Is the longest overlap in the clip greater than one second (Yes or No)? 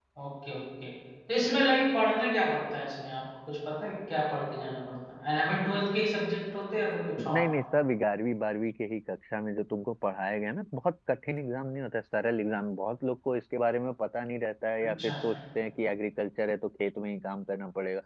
No